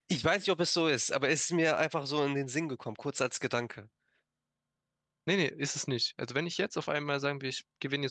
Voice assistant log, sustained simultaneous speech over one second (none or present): none